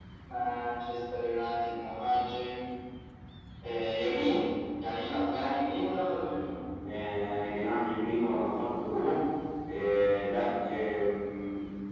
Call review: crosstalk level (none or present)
none